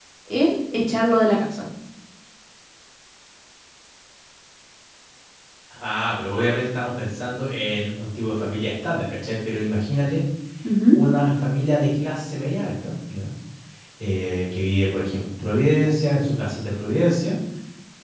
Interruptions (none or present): none